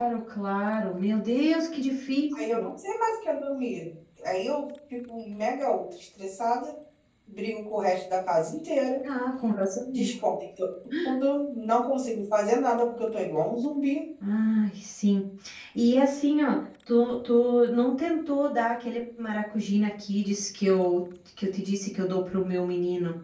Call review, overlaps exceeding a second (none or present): none